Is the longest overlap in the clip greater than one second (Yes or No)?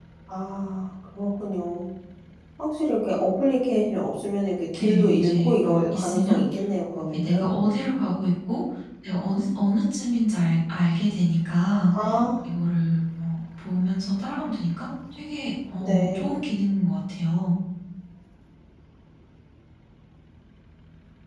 Yes